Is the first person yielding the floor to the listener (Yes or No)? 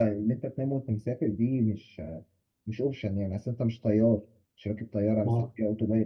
No